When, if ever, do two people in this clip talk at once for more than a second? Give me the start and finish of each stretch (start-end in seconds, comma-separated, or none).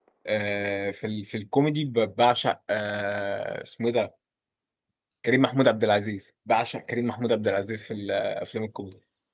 none